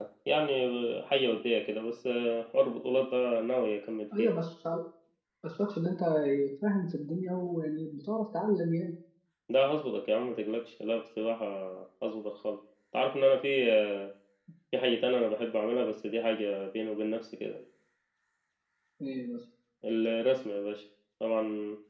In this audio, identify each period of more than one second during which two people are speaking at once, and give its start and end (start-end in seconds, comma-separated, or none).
none